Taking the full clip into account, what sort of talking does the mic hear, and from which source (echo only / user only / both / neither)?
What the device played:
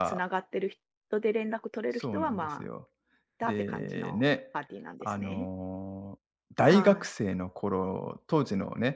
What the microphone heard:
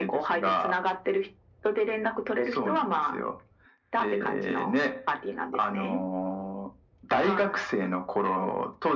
echo only